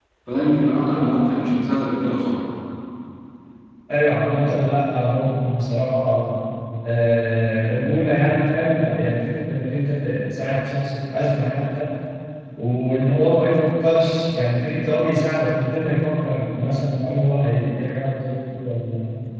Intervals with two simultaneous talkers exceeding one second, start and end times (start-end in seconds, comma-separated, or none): none